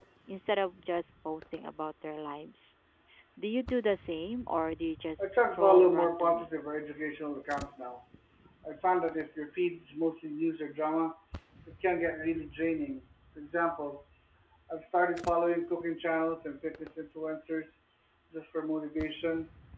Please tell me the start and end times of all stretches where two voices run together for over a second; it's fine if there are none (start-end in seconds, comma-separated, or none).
5.2-6.5